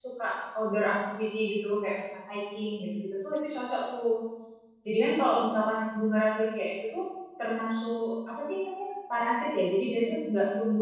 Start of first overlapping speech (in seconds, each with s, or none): none